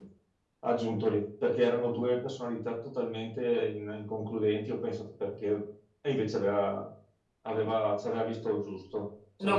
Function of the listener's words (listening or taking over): taking over